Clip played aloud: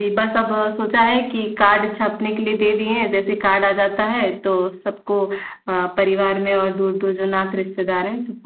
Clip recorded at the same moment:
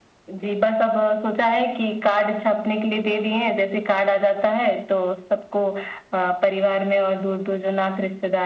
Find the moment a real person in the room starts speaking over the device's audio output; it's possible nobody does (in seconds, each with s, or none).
none